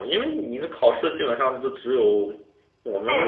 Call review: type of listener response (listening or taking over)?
taking over